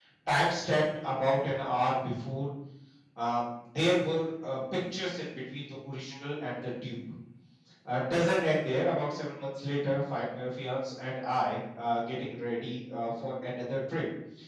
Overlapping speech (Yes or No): No